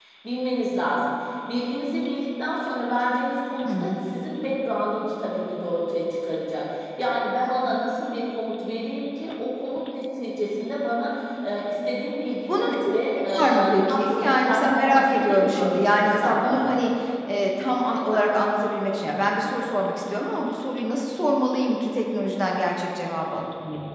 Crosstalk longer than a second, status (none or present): present